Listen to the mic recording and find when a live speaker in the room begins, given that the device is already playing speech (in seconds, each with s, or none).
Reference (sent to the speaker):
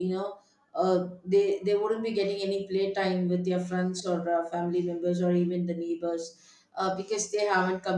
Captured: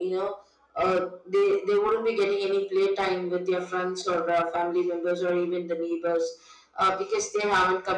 none